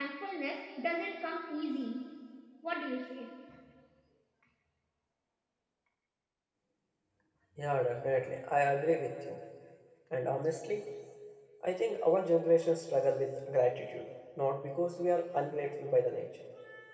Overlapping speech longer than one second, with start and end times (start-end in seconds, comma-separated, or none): none